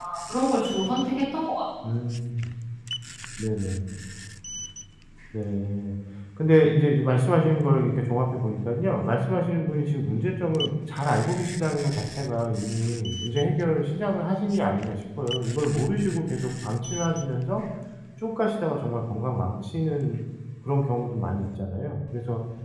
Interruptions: none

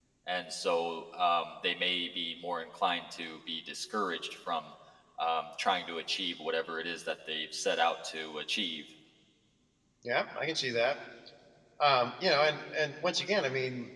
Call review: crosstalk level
none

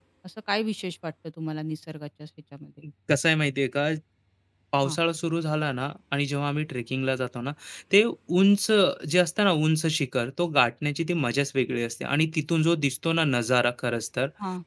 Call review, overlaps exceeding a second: none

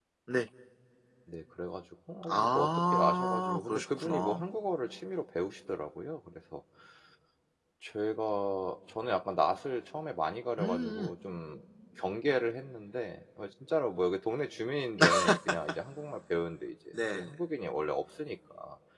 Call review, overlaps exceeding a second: present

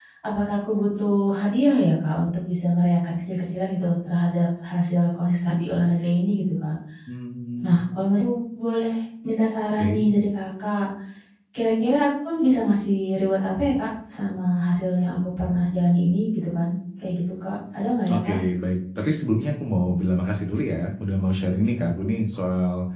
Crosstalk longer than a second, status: none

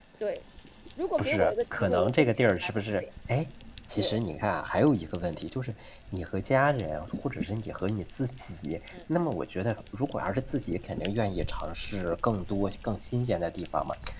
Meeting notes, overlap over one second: present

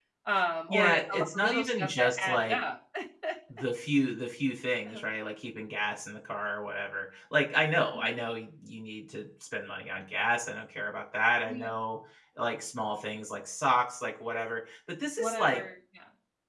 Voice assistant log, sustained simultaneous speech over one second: present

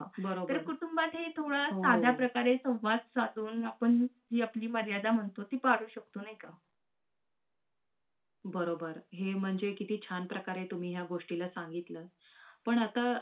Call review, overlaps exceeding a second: none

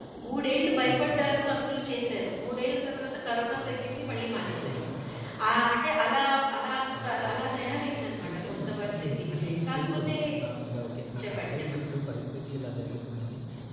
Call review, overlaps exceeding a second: present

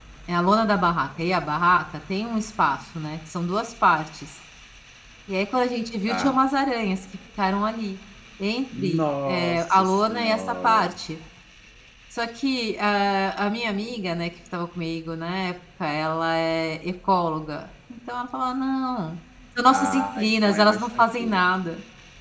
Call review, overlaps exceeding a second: present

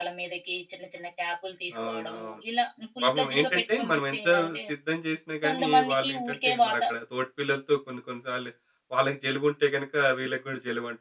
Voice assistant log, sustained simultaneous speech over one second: present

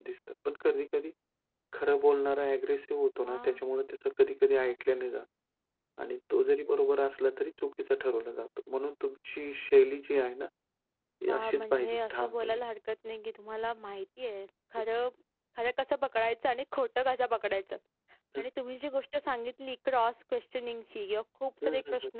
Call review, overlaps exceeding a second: present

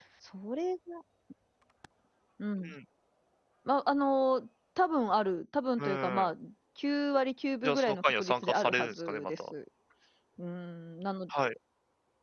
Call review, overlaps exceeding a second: present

